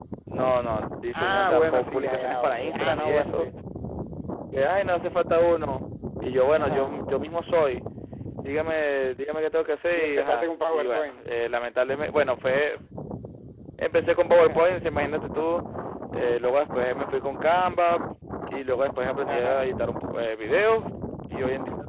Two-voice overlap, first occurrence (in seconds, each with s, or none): 1.1 s